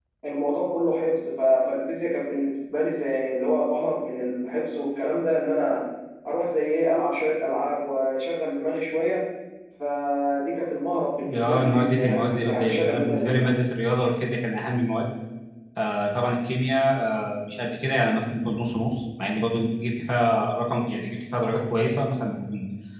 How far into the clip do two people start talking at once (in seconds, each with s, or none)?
11.2 s